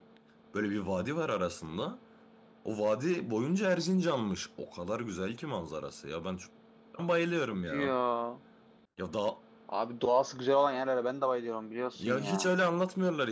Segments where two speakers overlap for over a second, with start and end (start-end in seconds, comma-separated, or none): none